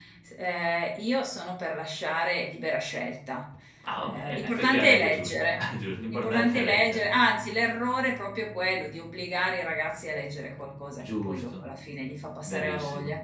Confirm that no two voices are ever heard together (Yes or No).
No